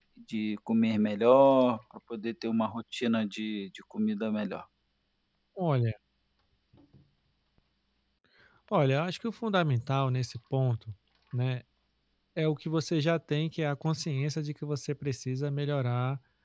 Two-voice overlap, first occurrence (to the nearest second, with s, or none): none